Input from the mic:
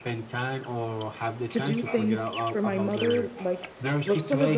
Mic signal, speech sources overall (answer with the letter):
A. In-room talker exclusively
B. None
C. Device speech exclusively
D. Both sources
D